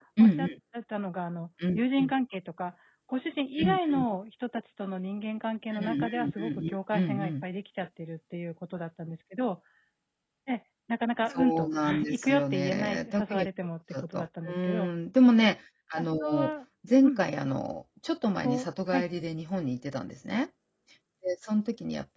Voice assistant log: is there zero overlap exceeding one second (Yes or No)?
No